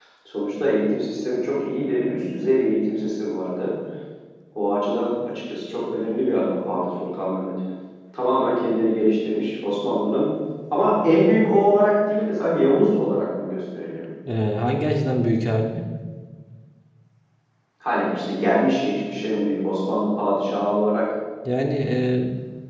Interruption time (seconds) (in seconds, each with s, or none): none